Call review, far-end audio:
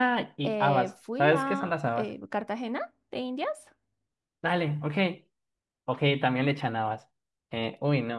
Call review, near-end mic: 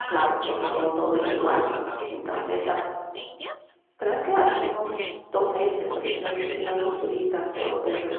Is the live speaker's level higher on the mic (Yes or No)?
Yes